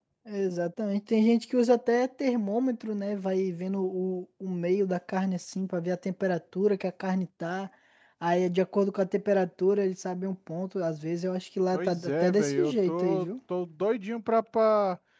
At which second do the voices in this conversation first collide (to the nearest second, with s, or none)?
12 s